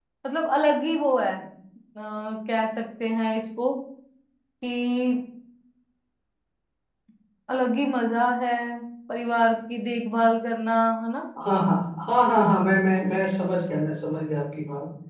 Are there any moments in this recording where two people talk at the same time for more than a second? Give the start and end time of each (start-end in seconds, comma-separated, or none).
none